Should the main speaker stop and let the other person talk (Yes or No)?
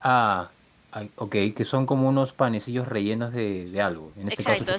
Yes